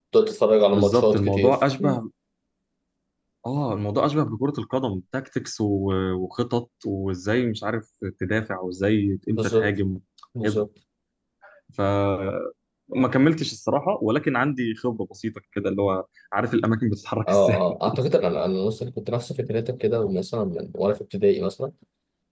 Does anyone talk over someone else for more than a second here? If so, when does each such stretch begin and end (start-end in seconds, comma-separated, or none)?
0.7-2.0